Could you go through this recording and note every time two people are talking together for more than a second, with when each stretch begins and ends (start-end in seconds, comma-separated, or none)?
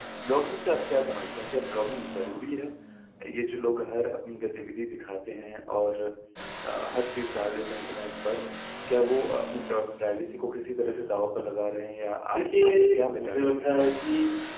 12.3-14.1